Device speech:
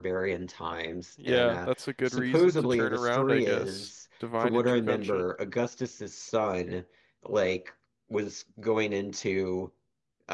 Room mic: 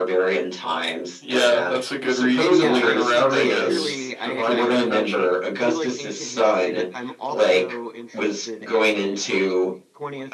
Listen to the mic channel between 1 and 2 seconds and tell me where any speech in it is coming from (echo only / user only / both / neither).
echo only